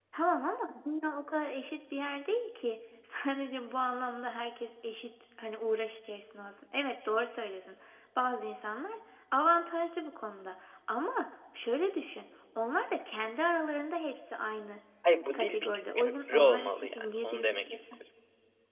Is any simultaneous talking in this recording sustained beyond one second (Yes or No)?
Yes